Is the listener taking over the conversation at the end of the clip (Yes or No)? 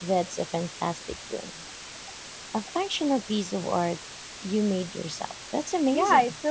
Yes